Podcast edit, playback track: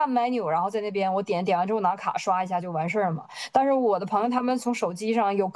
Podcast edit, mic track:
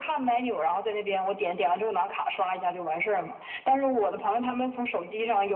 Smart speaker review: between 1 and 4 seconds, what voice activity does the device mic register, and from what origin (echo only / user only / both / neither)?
echo only